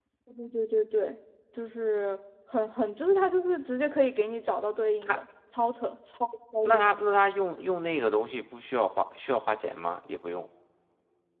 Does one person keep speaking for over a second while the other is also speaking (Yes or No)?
No